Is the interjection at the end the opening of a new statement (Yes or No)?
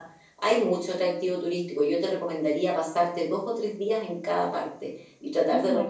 No